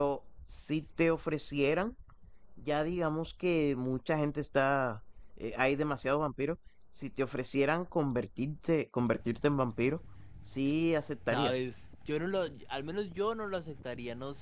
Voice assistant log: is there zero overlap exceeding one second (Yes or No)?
Yes